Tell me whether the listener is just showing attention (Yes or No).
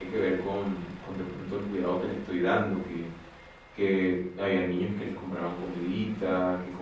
Yes